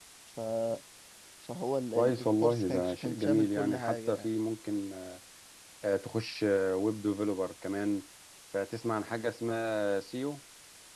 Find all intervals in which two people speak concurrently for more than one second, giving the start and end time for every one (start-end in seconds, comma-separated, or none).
1.9-4.3